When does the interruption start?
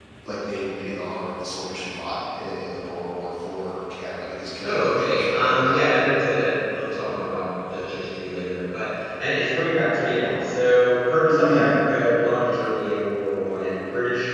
4.6 s

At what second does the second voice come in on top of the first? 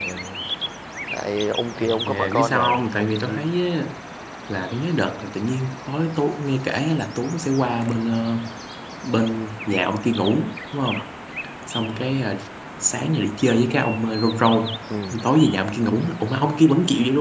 1.8 s

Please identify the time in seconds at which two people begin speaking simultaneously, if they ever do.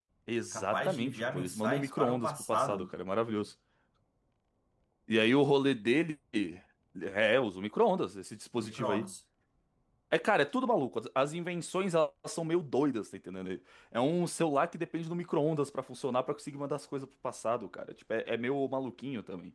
0.5 s

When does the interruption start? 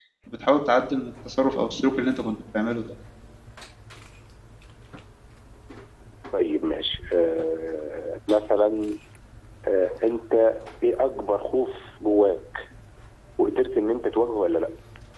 none

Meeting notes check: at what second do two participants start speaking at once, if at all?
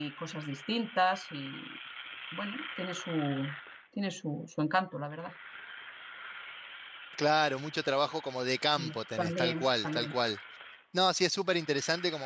8.8 s

